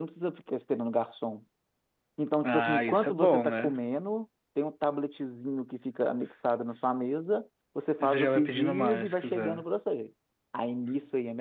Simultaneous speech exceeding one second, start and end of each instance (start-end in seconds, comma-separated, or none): 2.4-3.7, 8.0-9.6